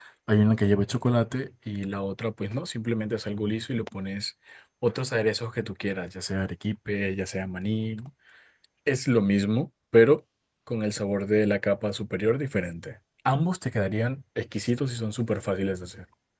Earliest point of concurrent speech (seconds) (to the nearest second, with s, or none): none